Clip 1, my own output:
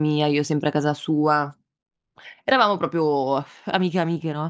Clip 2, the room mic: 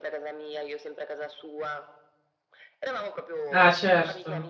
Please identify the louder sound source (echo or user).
user